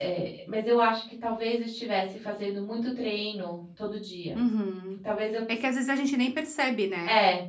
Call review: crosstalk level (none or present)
none